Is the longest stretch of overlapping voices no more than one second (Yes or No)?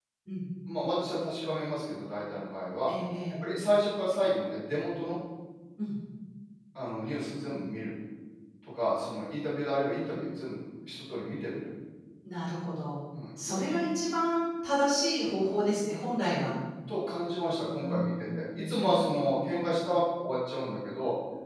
No